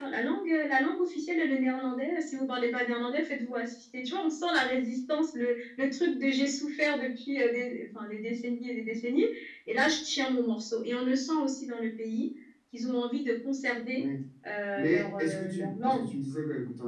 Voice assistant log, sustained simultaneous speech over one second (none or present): present